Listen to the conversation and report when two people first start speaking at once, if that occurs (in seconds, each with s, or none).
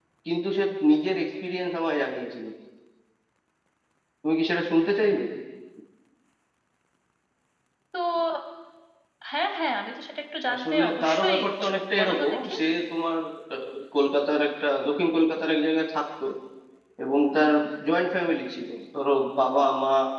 10.5 s